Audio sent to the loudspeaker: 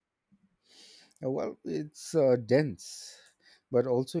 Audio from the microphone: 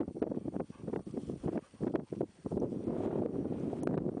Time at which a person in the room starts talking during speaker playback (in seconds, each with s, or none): none